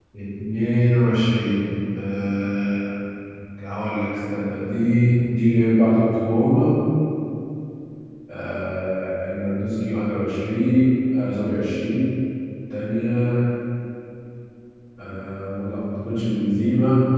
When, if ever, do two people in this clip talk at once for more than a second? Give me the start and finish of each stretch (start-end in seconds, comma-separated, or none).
none